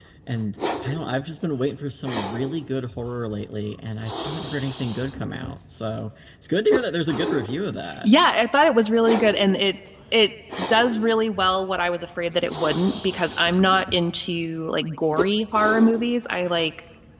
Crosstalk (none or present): none